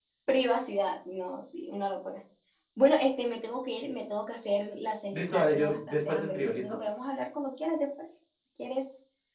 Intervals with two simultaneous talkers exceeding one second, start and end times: 5.1-6.7

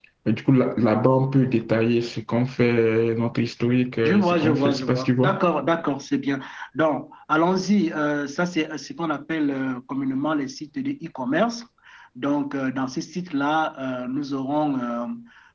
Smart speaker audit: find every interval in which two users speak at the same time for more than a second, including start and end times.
4.0-5.4

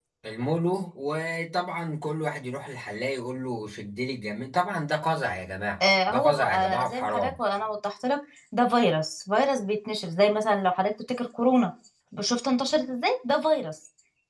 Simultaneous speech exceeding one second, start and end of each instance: 6.1-7.3

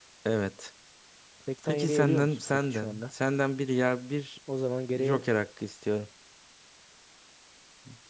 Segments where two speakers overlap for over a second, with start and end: 1.6-3.0

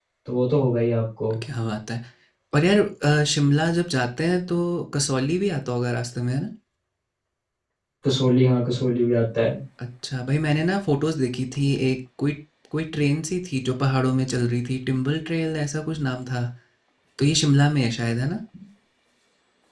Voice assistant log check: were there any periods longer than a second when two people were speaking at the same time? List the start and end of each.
none

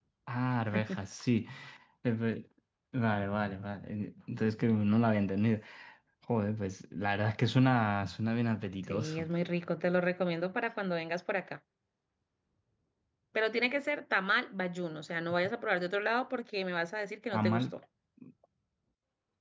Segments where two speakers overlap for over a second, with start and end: none

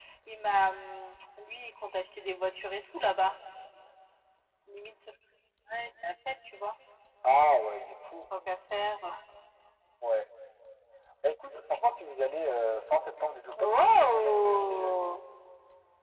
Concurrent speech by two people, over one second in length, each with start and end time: 13.6-15.2

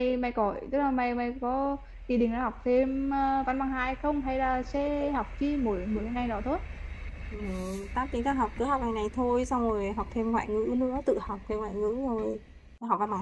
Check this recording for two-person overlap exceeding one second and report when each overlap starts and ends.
none

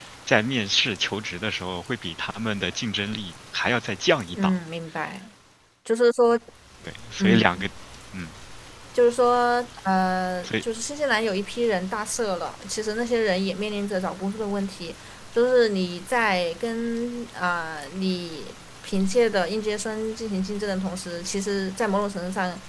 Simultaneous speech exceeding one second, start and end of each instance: none

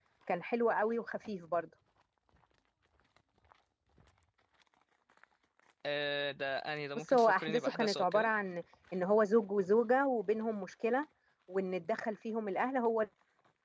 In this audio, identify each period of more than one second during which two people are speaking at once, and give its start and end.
7.0-8.3

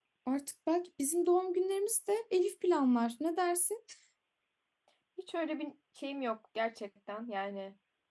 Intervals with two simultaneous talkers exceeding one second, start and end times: none

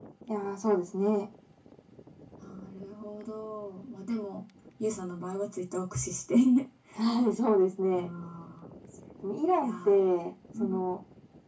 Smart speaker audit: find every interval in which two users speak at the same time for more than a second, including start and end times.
none

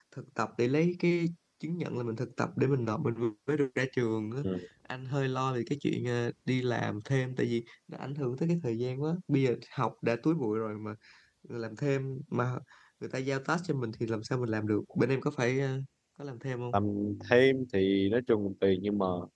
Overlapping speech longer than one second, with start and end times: none

